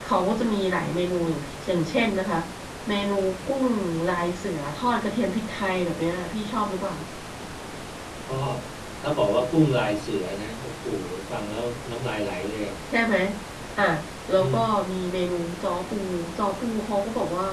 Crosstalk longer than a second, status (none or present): none